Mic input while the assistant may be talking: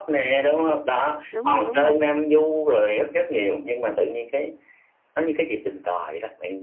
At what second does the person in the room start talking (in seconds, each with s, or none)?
1.3 s